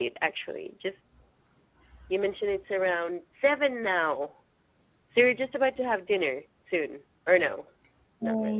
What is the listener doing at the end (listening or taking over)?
taking over